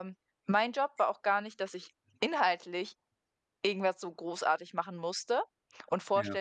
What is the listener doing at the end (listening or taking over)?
listening